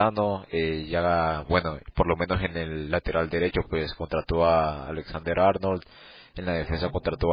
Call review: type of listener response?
listening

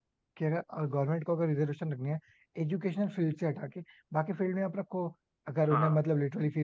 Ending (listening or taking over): listening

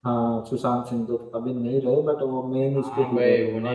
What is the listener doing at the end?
taking over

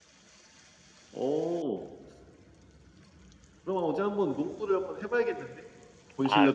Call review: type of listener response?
taking over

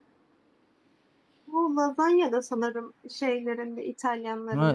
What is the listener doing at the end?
taking over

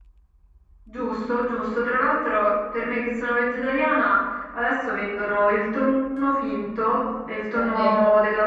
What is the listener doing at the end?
listening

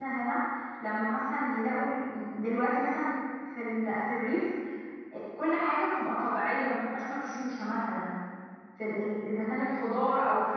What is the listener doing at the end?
listening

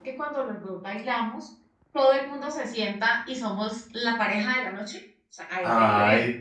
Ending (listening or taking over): taking over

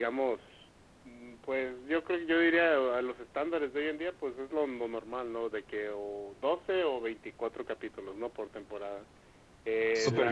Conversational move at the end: taking over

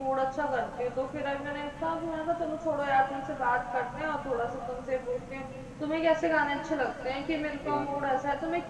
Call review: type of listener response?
listening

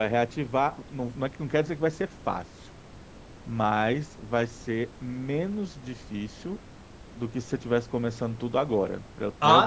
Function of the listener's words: taking over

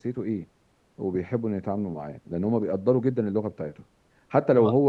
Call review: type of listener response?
listening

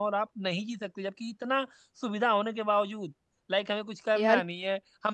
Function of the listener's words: listening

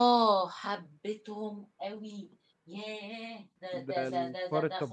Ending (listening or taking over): taking over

